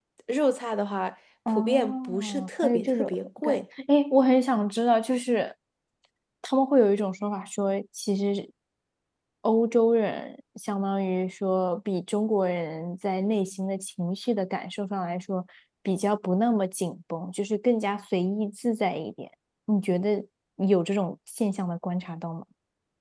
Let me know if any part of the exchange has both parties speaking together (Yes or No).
Yes